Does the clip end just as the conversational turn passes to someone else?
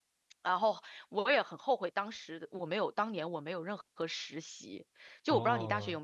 Yes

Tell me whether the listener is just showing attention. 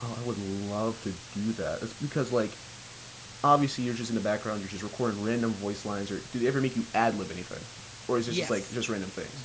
No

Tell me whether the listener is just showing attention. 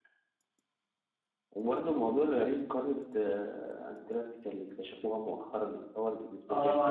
No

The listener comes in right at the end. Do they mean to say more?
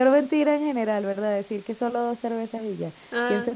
No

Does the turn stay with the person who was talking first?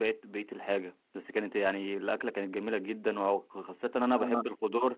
Yes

